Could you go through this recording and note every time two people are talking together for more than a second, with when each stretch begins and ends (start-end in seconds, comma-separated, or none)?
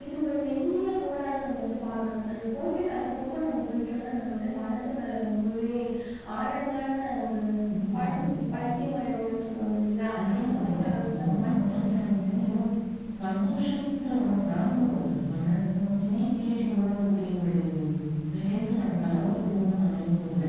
10.2-12.2